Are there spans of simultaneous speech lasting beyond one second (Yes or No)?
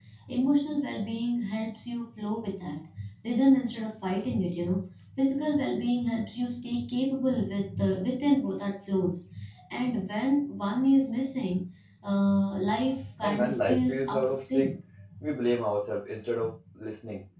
Yes